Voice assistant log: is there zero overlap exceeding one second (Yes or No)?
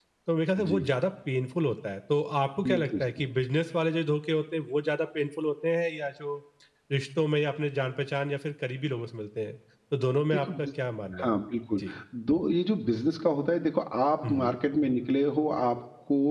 Yes